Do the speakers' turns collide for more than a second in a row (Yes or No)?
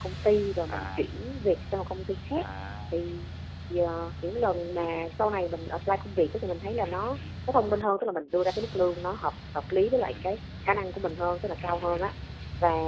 No